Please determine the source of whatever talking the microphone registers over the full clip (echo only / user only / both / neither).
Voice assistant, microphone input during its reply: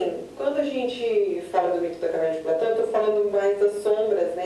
echo only